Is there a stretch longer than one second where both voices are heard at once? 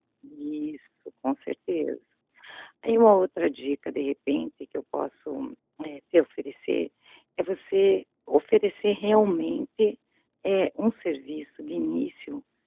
No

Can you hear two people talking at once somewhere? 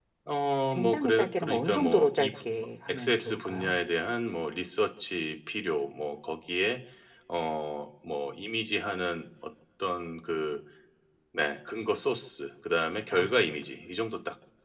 Yes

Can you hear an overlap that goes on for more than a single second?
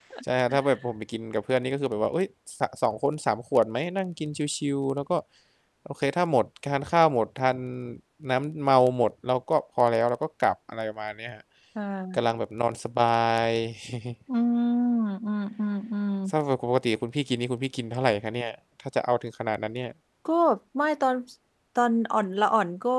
No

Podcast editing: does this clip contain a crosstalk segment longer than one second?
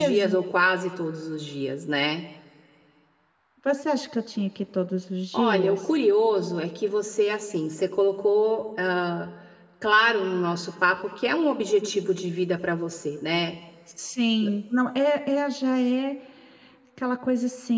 No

